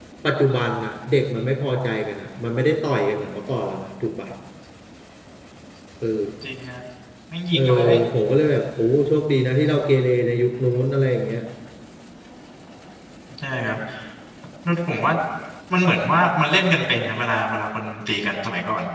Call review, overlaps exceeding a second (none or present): none